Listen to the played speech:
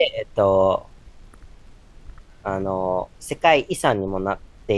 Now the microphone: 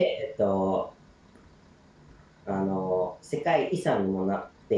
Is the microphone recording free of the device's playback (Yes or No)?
No